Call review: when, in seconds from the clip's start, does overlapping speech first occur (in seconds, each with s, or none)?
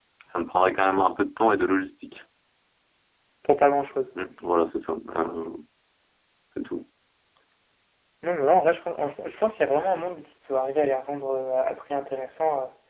none